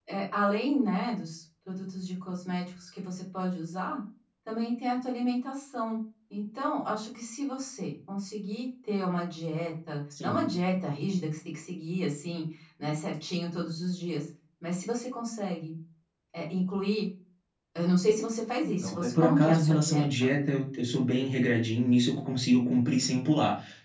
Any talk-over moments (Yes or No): Yes